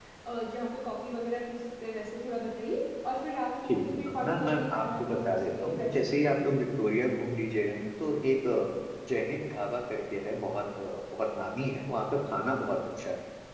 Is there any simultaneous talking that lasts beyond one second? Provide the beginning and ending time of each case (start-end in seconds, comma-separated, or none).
3.7-6.4